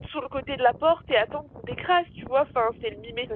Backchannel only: Yes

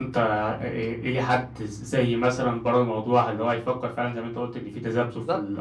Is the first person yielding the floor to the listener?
No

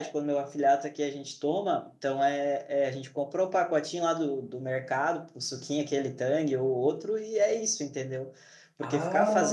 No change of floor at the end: Yes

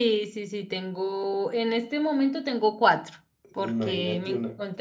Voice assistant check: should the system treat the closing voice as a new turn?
Yes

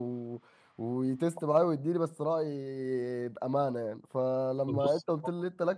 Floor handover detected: No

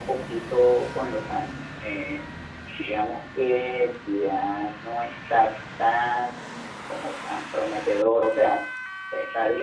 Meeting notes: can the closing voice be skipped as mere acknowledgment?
Yes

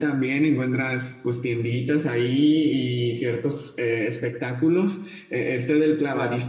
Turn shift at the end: No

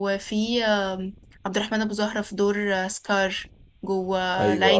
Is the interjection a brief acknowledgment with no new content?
Yes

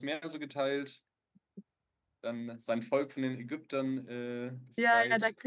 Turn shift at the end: Yes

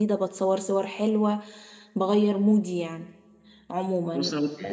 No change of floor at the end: Yes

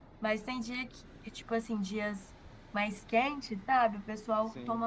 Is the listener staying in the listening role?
Yes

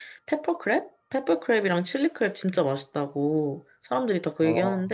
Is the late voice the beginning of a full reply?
No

